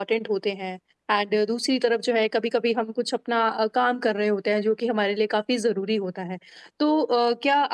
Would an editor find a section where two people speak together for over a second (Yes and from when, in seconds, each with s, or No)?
No